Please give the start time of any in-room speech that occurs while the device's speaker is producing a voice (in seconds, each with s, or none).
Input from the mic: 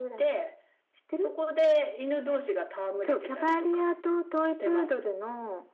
none